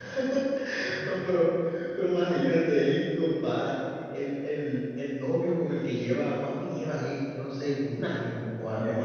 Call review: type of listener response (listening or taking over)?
taking over